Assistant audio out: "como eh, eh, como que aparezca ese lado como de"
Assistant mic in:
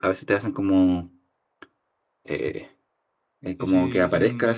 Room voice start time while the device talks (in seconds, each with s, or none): 3.5 s